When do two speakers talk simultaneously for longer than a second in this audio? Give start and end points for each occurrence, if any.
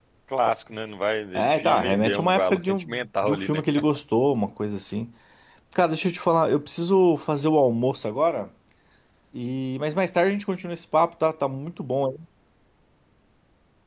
1.4-3.6

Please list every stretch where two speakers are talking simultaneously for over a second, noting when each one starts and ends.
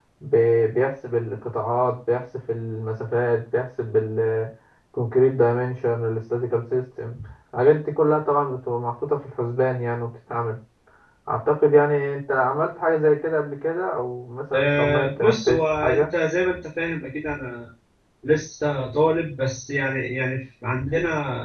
14.5-16.1

